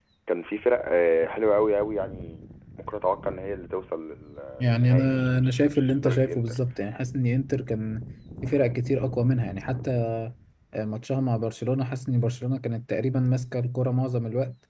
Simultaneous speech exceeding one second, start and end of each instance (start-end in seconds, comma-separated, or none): 4.6-6.6